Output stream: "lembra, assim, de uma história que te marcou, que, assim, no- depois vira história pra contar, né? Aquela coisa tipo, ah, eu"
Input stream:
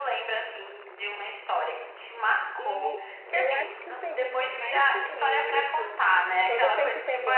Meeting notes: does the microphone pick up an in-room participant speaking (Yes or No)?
Yes